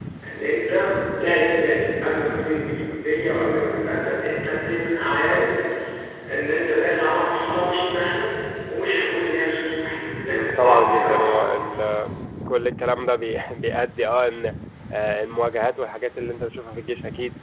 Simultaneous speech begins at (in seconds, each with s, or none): 10.3 s